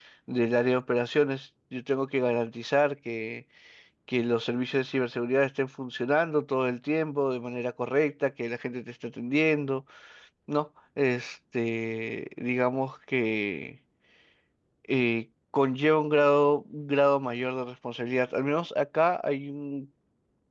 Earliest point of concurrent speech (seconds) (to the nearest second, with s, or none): none